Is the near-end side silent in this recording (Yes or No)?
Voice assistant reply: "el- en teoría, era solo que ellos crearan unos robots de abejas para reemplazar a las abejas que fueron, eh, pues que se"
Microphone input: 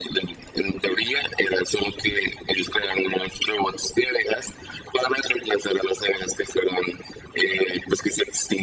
Yes